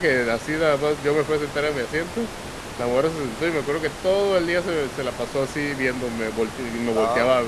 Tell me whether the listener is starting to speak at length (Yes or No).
No